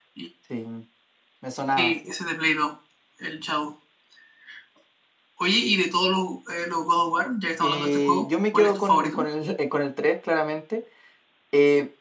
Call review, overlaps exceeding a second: present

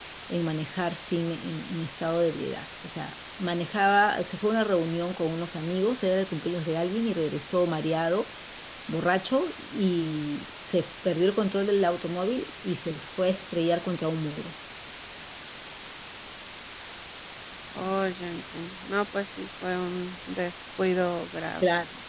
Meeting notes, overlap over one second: none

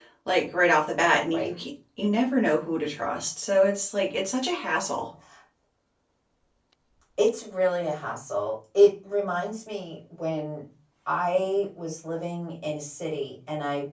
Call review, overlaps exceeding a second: none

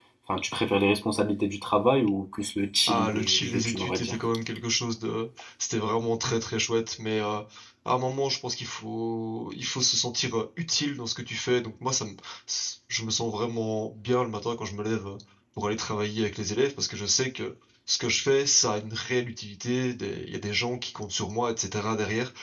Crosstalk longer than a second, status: present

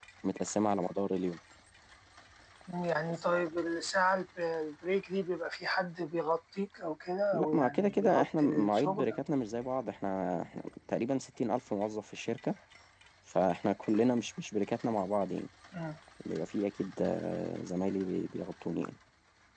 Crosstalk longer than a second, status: present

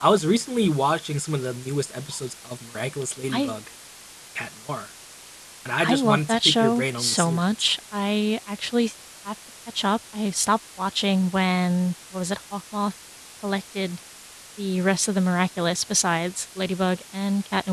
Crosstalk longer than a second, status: present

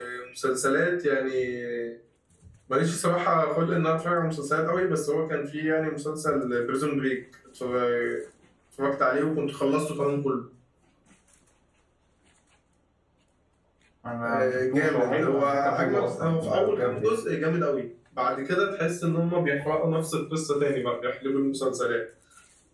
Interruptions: present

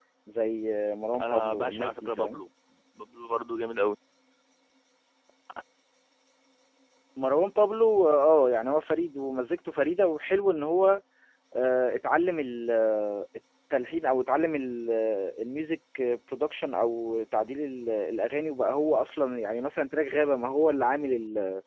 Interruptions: present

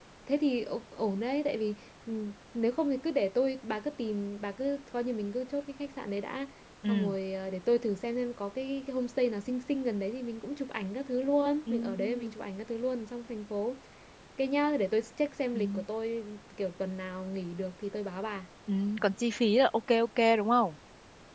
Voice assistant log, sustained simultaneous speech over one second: none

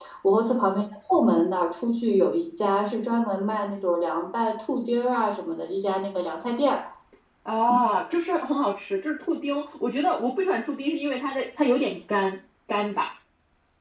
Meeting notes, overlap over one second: none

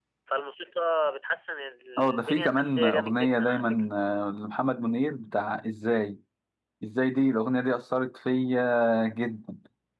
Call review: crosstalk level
present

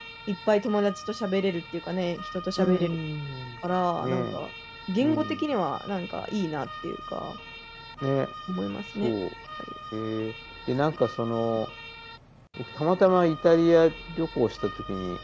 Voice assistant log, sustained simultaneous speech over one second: none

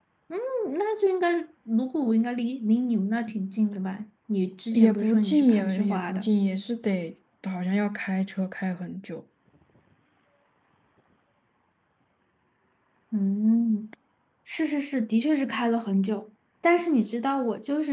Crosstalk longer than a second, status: present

